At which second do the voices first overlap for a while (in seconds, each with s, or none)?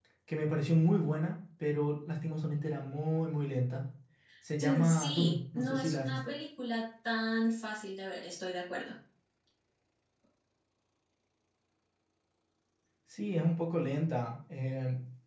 4.6 s